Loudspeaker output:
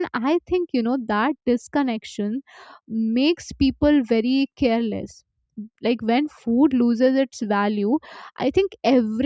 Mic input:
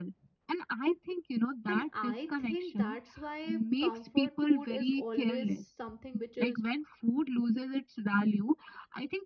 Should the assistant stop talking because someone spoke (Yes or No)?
Yes